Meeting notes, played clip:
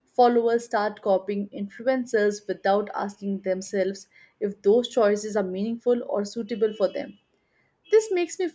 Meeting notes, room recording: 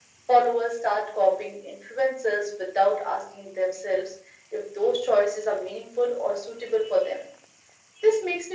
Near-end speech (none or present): none